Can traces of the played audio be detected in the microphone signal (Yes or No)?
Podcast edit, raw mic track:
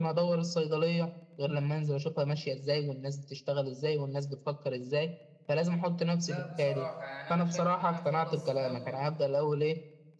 Yes